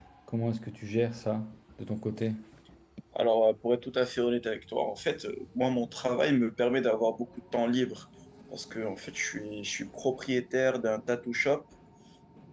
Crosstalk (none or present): none